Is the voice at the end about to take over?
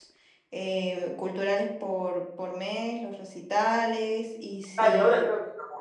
Yes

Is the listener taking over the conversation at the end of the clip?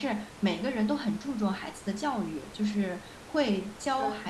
No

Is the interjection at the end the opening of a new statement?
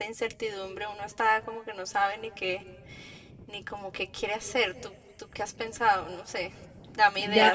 Yes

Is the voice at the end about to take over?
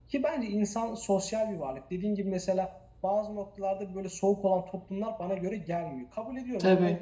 No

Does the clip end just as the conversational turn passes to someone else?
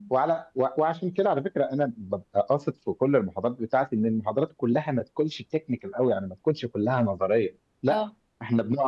No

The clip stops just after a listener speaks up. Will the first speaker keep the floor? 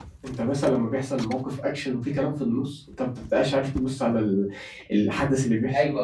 Yes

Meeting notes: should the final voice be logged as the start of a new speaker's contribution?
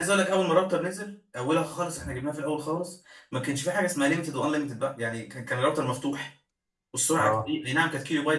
No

